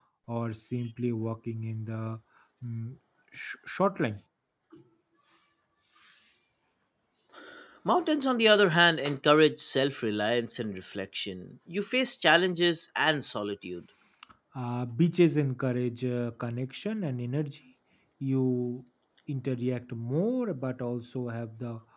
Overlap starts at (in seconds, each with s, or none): none